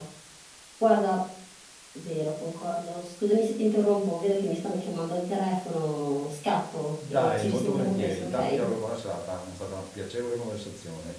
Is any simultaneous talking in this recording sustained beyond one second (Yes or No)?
Yes